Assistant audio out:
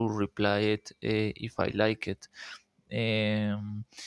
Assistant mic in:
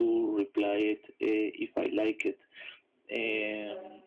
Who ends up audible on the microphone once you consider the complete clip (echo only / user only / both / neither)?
both